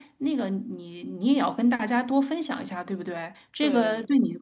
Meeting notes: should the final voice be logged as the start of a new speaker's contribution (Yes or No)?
No